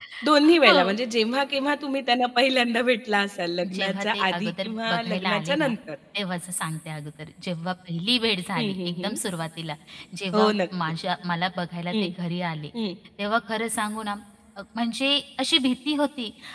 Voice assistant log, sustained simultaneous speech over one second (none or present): present